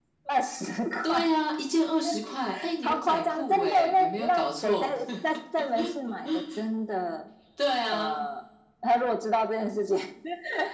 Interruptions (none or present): present